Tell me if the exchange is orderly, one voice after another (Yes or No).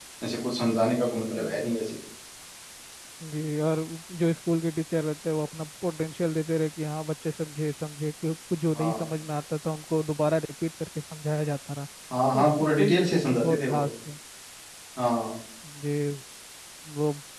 No